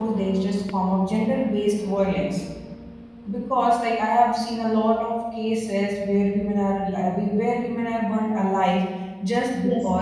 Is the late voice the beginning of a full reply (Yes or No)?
No